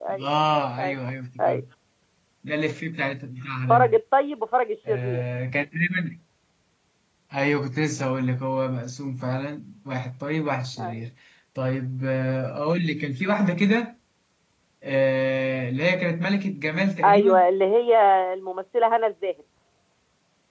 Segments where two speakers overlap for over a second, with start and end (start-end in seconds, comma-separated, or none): none